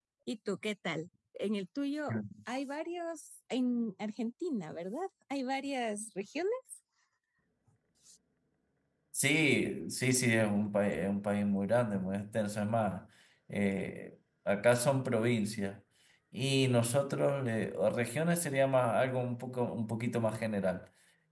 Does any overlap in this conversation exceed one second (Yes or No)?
No